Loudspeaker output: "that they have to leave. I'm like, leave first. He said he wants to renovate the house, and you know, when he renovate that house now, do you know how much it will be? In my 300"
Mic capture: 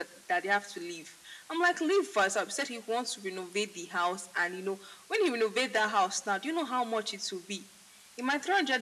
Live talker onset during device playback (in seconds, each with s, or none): none